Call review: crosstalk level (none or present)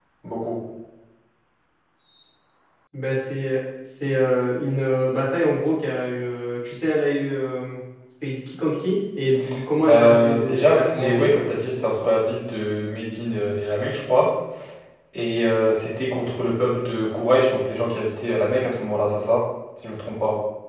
present